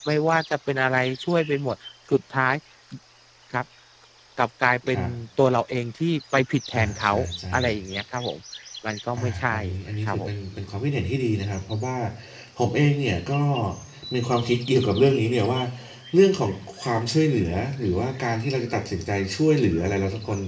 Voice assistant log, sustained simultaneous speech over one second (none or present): none